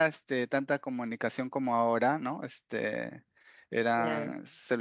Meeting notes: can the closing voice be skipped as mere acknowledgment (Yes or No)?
Yes